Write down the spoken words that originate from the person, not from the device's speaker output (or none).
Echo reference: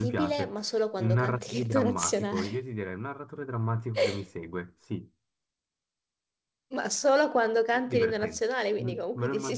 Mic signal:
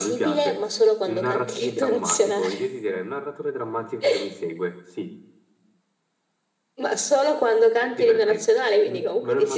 none